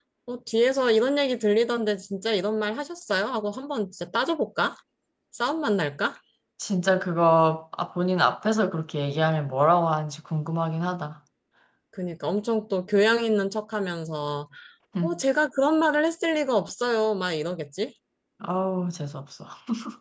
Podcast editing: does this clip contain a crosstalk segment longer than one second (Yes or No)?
No